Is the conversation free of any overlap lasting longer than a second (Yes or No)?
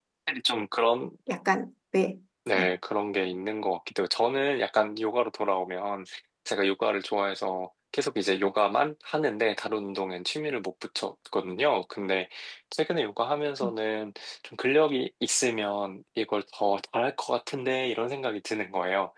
Yes